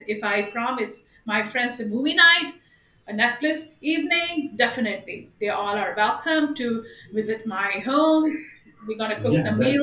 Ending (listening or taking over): taking over